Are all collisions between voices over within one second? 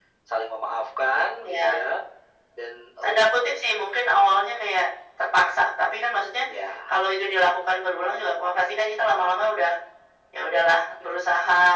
Yes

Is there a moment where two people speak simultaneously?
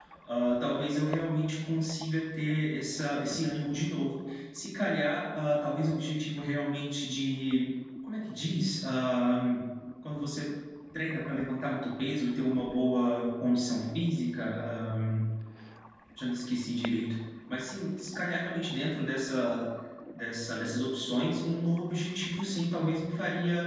No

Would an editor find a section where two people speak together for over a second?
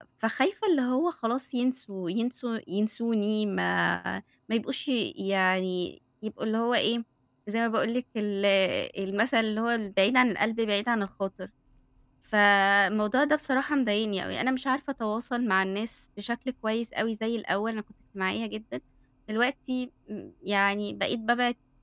No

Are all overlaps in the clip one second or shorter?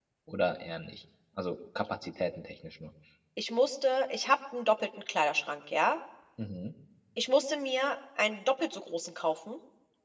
Yes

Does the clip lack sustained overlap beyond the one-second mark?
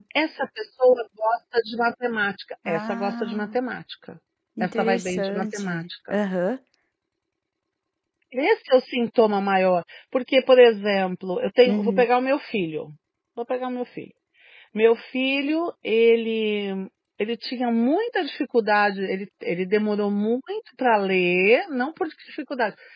No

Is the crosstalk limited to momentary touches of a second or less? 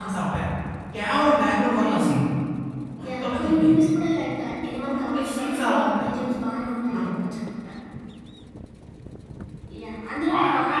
No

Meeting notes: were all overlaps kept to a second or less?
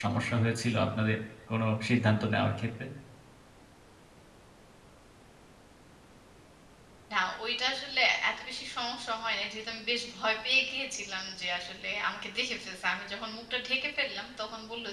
Yes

